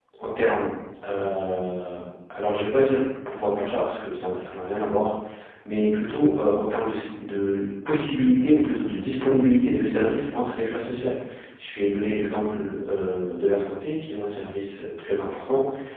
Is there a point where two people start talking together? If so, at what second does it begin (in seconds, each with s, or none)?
none